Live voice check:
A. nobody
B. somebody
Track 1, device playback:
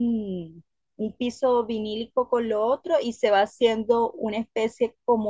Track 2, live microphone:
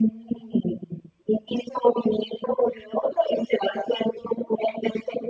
A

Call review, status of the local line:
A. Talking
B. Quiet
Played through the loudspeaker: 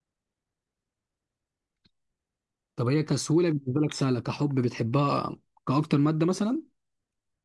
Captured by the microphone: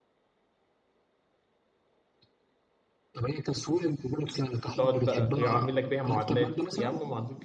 A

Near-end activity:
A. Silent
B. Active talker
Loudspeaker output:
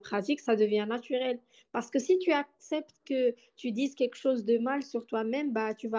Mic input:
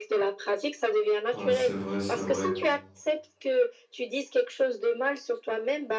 B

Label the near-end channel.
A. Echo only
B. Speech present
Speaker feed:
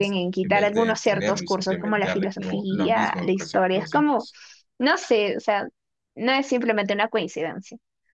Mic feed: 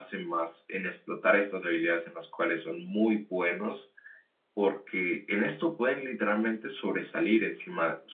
B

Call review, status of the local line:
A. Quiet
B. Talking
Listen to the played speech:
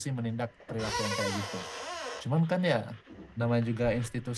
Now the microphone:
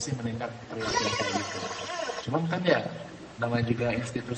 A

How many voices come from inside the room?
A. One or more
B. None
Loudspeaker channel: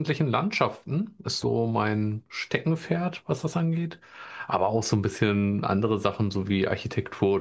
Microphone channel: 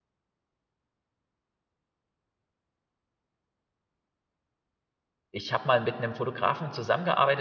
A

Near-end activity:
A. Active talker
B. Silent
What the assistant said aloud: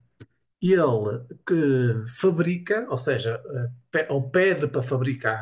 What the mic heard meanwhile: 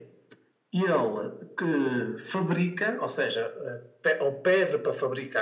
B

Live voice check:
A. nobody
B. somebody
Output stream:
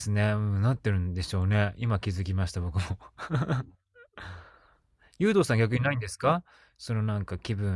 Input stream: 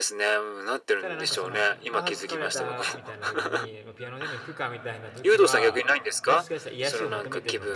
B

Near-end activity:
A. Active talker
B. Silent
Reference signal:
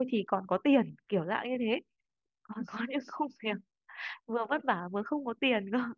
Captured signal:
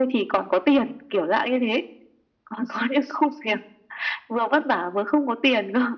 B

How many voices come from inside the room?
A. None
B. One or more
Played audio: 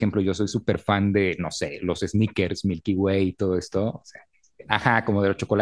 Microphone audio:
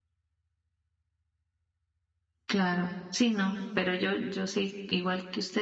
B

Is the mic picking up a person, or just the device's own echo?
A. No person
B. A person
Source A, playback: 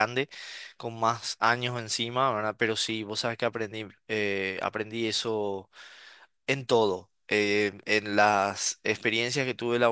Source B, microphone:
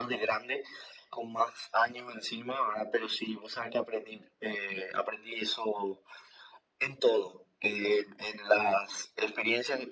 A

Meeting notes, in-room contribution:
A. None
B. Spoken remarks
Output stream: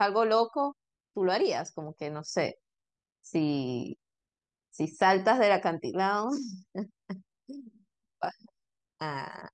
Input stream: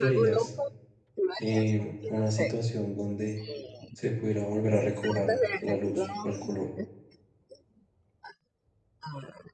B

